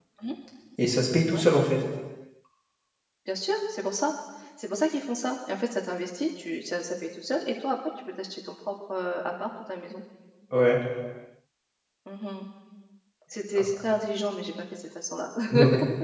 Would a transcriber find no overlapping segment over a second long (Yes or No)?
Yes